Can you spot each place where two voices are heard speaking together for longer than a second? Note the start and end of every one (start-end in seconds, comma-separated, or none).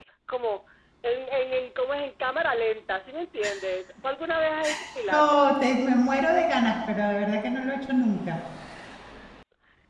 none